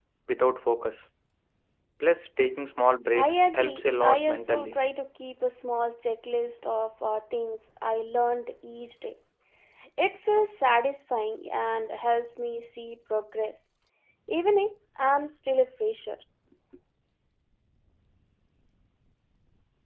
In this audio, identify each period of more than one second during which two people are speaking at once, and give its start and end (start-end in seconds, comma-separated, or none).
3.1-4.8